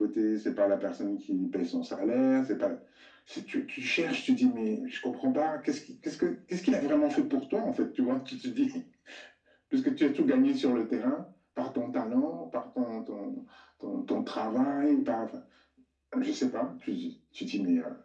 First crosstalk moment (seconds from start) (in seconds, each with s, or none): none